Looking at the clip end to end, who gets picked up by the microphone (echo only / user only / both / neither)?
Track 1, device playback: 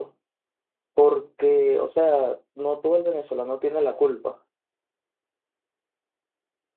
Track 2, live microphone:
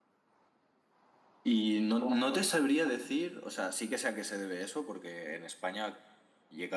user only